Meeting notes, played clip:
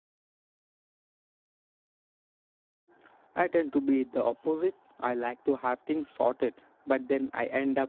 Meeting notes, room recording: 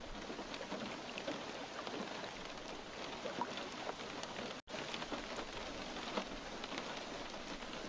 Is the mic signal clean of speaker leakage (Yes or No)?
Yes